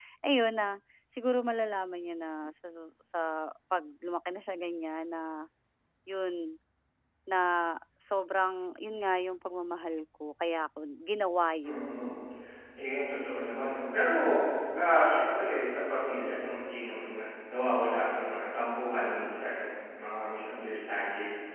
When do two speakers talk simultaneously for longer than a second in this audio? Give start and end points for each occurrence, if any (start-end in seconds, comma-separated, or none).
none